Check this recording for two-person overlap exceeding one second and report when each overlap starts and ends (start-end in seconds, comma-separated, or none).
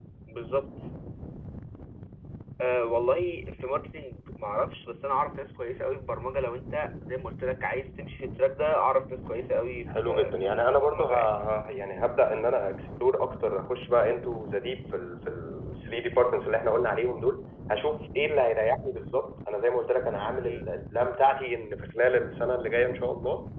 9.9-11.1